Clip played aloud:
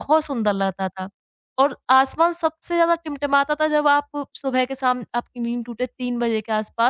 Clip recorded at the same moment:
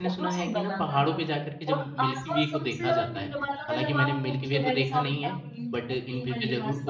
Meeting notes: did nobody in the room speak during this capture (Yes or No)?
No